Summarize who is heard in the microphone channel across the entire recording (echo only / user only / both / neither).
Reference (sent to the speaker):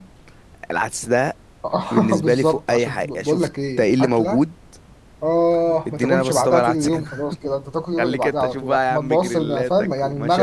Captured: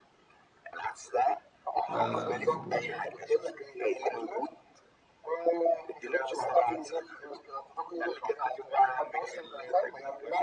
both